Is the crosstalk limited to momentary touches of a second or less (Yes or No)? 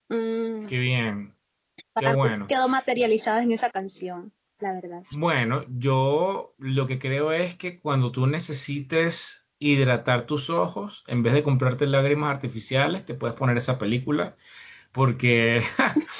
Yes